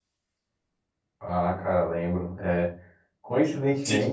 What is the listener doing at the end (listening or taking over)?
listening